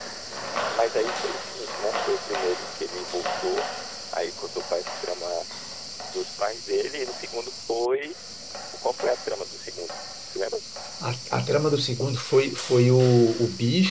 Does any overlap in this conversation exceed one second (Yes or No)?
No